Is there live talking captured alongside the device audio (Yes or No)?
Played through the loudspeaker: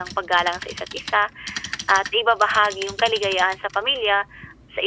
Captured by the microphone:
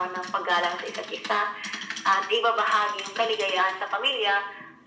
No